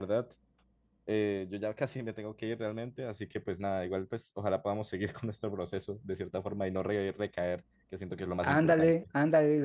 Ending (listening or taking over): taking over